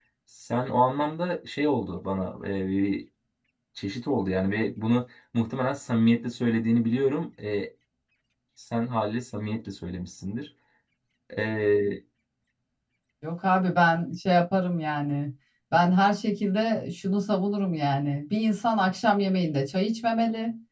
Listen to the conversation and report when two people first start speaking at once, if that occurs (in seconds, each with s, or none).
none